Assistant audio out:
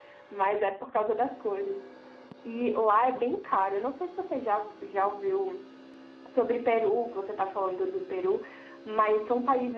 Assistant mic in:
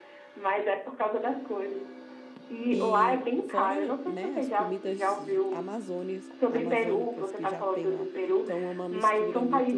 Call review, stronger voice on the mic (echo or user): echo